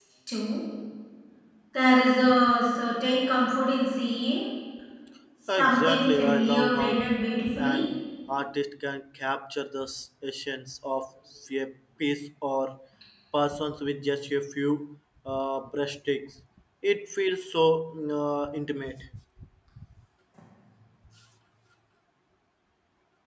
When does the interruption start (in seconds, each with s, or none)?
5.6 s